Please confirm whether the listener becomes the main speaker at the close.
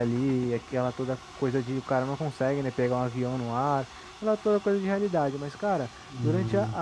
No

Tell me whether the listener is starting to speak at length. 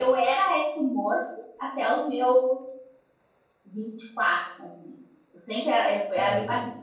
No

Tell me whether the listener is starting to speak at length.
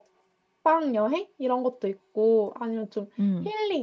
No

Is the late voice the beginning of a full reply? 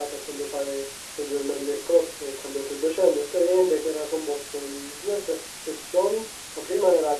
No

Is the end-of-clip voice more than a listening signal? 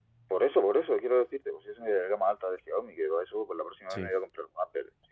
No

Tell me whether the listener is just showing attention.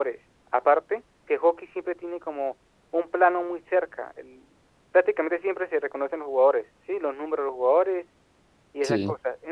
Yes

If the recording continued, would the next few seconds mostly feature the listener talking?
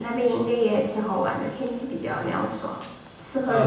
Yes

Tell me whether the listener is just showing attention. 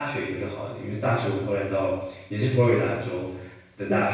Yes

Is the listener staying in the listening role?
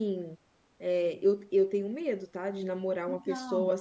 Yes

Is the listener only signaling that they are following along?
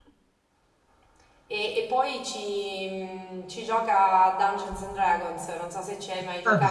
No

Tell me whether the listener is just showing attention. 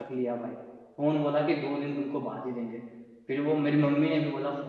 Yes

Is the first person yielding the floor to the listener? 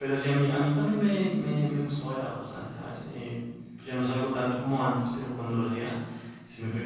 No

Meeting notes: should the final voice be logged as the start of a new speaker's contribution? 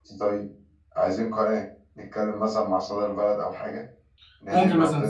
Yes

